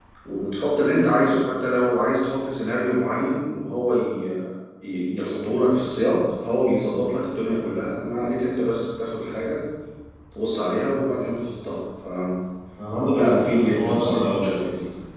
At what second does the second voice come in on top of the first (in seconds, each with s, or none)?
13.3 s